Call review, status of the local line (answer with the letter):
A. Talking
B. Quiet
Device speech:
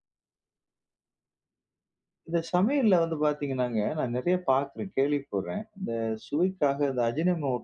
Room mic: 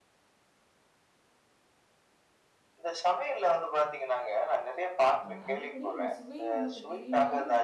A